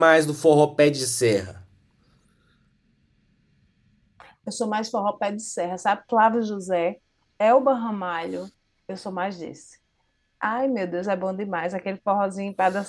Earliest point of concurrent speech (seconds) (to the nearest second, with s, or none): none